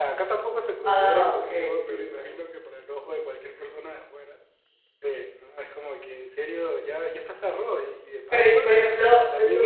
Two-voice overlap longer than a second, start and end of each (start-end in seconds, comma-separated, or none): 0.8-2.3